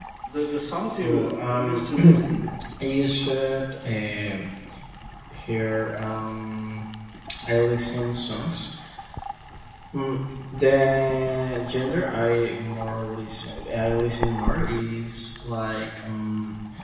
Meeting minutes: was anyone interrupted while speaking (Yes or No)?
Yes